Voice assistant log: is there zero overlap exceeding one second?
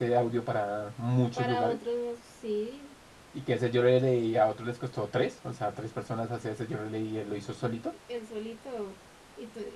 Yes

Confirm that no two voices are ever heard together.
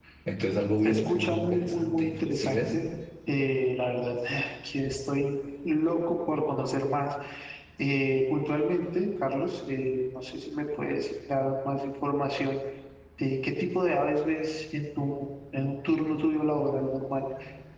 No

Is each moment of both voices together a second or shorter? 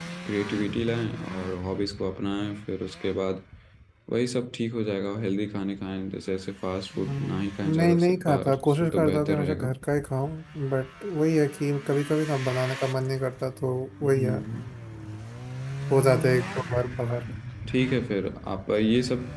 No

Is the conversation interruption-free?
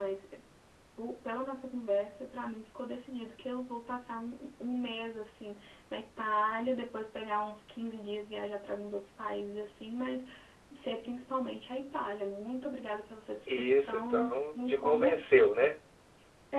No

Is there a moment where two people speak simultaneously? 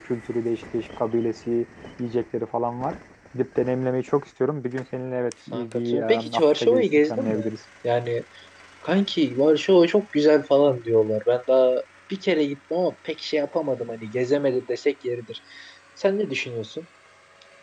Yes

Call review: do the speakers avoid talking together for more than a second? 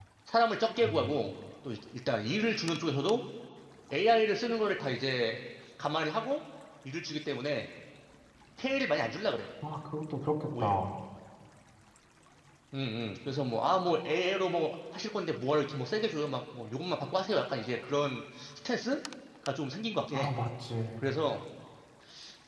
Yes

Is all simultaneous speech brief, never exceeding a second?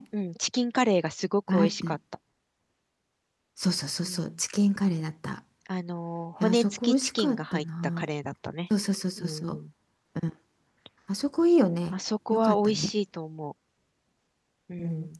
No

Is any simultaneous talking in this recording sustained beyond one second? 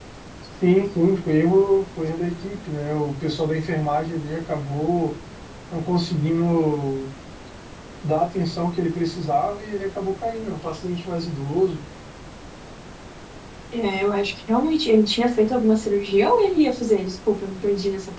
No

